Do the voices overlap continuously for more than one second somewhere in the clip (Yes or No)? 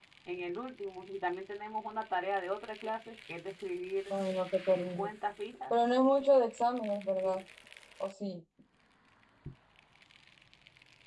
No